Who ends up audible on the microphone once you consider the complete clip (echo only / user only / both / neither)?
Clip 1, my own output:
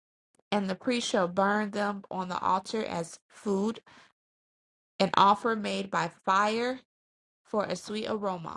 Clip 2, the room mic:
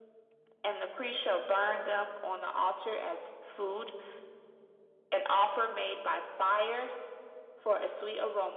echo only